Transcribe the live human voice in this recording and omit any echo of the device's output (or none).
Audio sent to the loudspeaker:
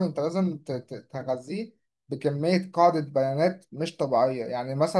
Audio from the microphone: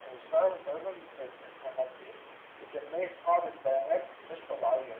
none